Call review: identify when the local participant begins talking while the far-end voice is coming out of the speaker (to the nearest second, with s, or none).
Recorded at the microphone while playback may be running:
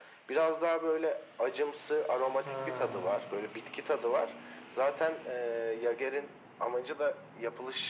2 s